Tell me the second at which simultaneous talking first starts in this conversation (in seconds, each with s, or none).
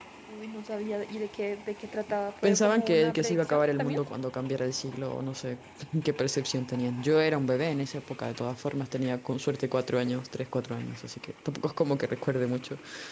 2.4 s